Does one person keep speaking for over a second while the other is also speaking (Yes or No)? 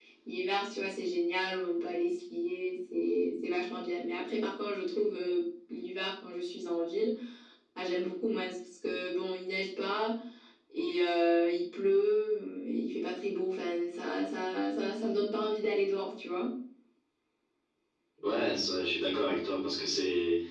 No